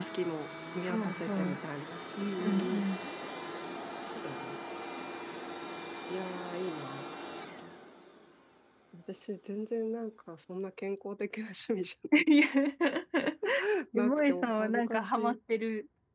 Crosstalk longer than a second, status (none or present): present